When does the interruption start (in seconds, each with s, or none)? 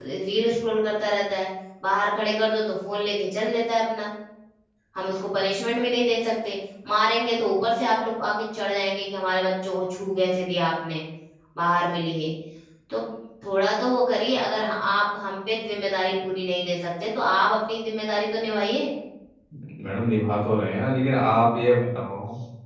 none